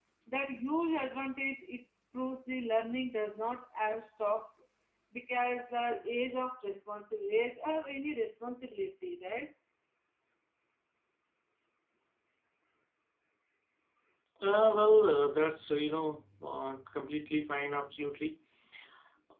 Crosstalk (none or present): none